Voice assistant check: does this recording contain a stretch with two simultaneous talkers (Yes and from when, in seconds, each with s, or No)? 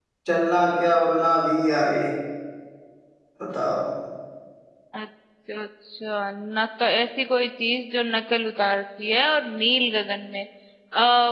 No